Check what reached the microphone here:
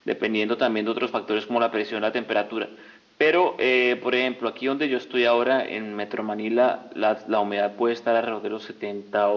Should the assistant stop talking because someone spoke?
No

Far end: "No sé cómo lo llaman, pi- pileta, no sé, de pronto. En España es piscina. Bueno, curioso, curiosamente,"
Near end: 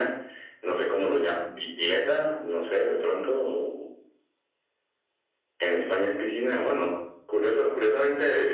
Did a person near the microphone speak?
No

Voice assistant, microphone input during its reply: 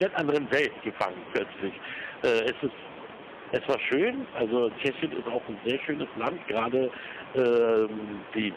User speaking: Yes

